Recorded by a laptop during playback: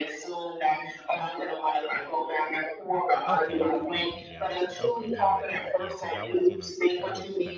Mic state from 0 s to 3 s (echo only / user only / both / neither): echo only